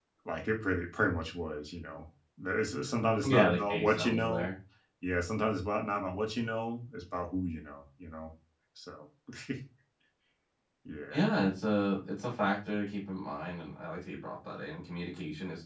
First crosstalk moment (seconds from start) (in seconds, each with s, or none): 3.2 s